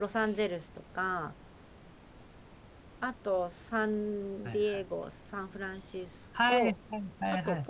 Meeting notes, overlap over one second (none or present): none